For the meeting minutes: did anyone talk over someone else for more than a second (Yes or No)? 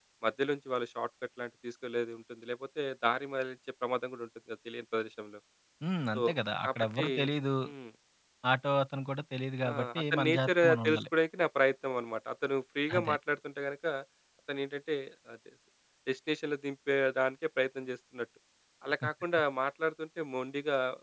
Yes